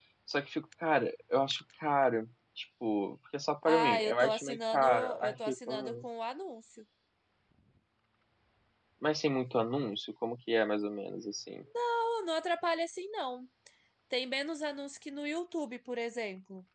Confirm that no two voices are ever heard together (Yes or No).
No